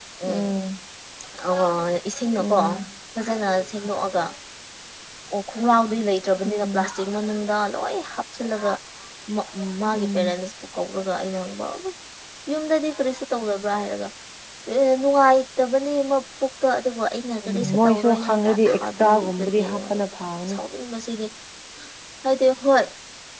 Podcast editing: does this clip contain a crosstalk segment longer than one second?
Yes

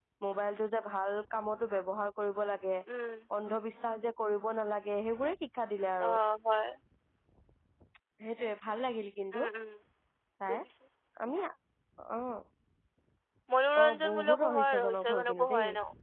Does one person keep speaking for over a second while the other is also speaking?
Yes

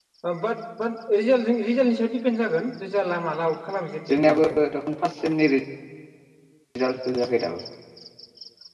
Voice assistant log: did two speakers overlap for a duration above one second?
No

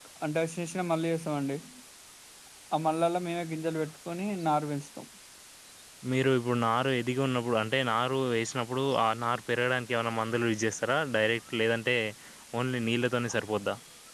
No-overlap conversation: Yes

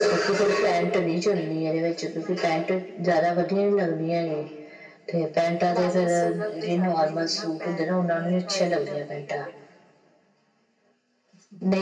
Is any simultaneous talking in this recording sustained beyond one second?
Yes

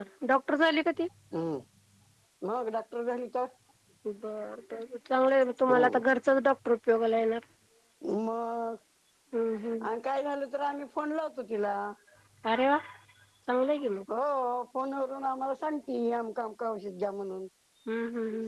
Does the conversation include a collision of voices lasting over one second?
No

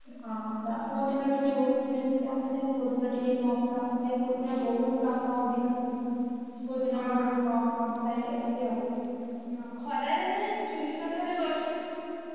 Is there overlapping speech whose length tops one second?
No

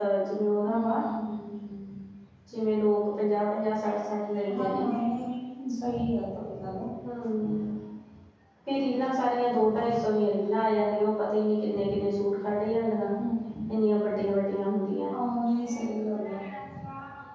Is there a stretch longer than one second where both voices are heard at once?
No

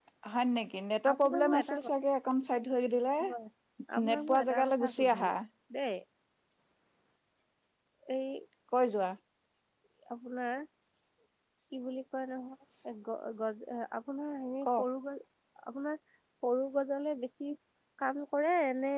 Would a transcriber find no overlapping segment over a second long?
No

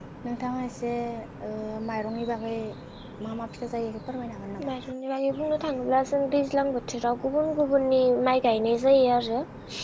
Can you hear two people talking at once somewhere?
No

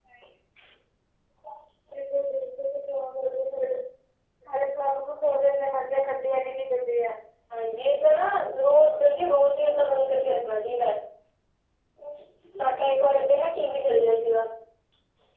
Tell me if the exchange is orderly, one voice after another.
Yes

